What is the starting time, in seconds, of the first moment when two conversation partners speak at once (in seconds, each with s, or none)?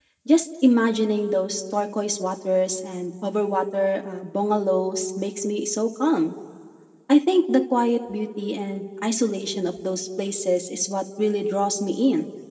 none